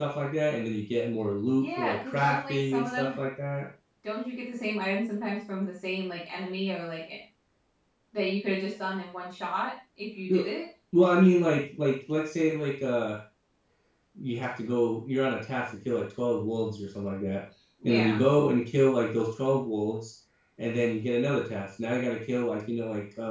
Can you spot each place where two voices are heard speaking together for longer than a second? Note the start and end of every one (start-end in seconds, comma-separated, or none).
1.6-3.2